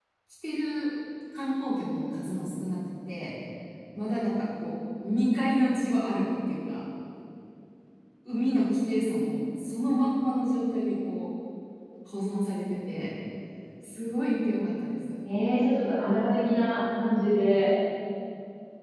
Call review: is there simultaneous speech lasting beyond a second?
No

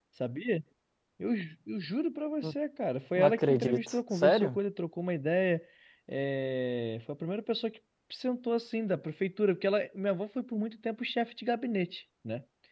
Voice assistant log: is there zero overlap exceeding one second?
No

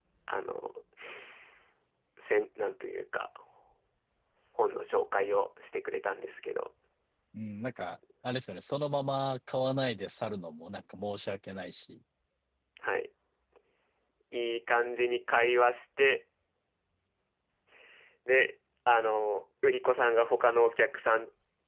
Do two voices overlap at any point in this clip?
No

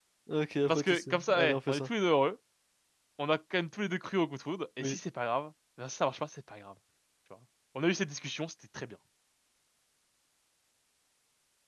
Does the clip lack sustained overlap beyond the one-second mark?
No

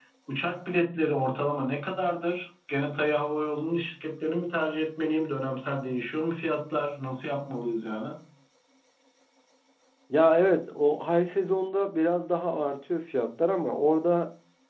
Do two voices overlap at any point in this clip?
No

